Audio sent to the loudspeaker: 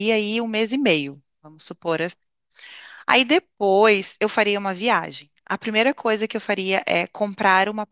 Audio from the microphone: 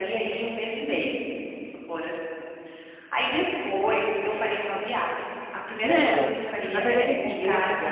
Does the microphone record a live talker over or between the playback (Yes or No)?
Yes